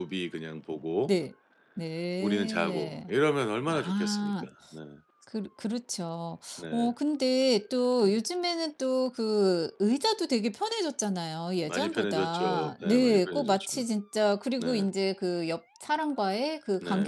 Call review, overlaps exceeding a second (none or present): present